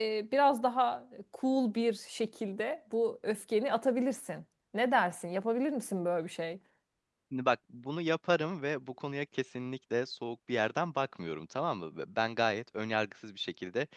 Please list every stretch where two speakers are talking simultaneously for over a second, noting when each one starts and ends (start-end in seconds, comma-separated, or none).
none